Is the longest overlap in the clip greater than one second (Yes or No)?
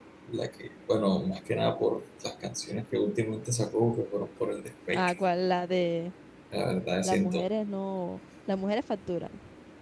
No